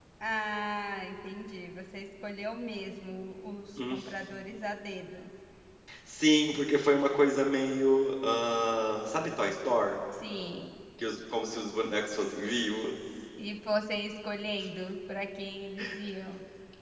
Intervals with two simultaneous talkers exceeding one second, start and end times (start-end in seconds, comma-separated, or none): none